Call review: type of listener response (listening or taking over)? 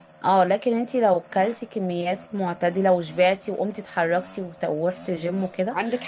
taking over